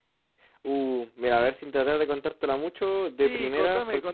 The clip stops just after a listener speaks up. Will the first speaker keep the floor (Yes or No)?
No